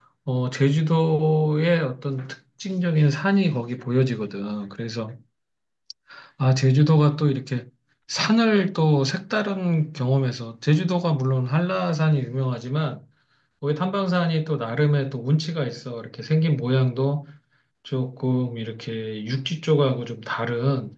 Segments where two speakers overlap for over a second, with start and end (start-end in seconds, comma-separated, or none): none